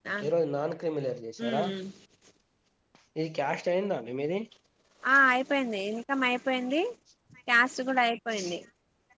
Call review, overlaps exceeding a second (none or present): none